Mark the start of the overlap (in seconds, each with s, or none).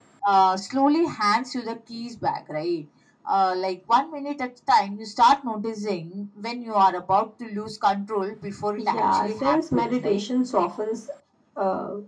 8.8 s